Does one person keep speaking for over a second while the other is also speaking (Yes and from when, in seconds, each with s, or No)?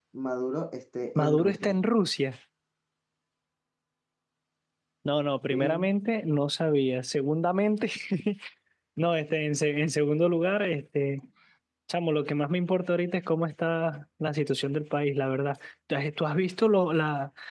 No